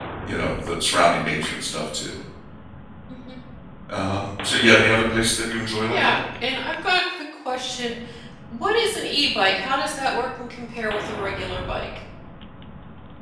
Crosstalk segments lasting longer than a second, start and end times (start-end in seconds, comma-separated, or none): none